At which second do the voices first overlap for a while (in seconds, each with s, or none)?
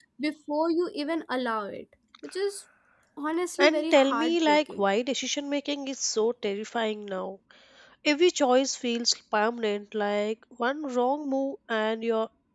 3.6 s